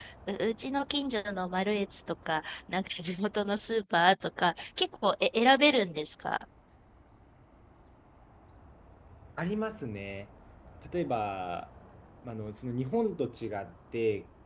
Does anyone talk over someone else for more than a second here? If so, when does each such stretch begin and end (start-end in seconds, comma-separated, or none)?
none